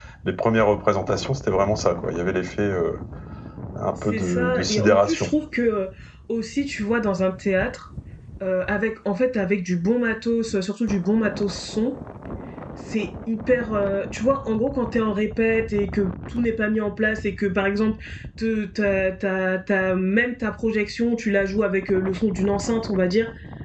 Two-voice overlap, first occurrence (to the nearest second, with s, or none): 4 s